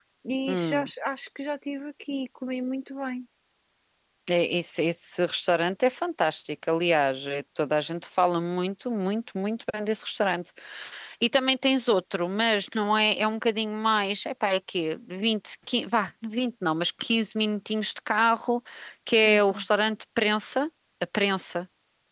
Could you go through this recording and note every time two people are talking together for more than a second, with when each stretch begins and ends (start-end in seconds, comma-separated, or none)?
none